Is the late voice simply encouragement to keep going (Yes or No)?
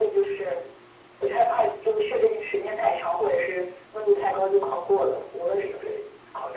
No